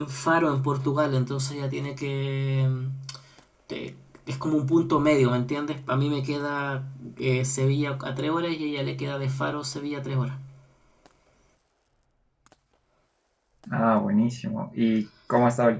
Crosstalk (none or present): none